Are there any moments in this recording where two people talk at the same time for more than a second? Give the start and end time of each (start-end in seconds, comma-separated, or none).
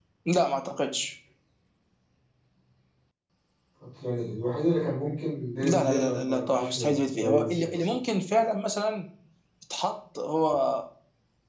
5.6-8.0